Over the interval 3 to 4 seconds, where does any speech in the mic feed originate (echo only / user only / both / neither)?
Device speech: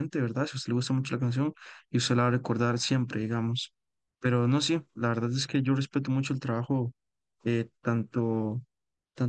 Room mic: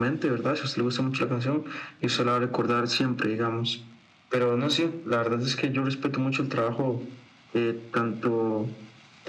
echo only